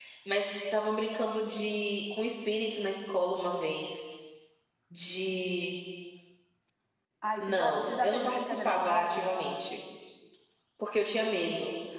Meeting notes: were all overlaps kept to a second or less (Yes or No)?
No